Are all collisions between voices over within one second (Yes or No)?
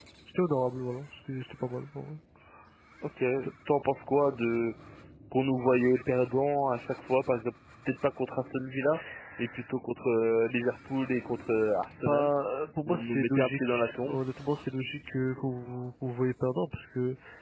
No